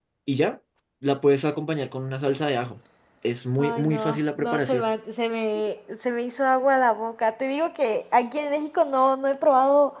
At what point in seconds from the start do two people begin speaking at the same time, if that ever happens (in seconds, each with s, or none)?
3.6 s